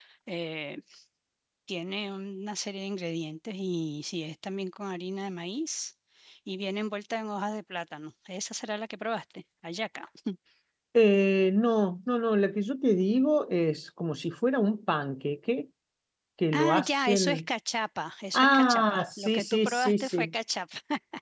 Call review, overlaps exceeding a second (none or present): present